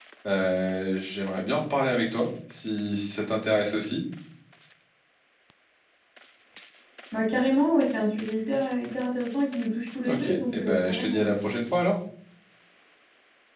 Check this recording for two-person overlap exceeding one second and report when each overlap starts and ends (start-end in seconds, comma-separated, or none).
10.1-11.4